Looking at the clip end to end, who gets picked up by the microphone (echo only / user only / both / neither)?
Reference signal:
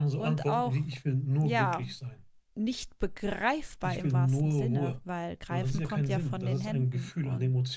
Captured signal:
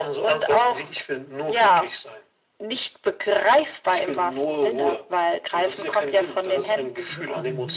both